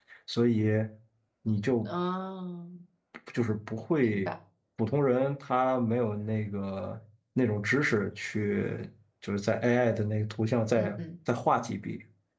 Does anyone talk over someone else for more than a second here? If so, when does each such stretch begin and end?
none

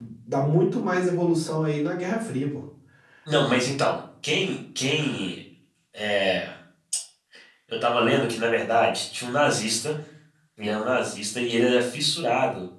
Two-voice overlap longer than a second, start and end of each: none

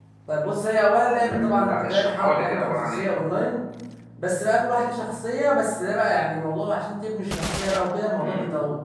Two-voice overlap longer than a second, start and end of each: 1.2-3.1

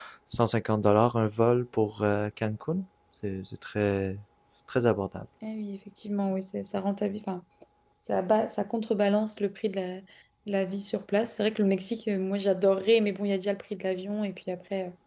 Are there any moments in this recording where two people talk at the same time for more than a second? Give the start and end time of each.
none

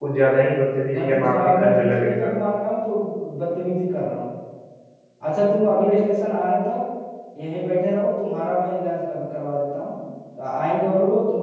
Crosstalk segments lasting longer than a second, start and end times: 0.9-2.3

